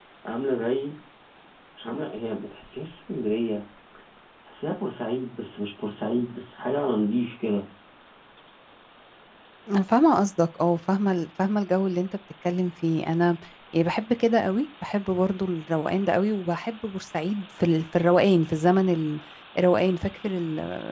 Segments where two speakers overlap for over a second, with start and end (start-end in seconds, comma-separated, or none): none